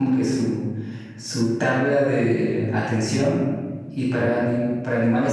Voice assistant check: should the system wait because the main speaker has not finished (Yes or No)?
Yes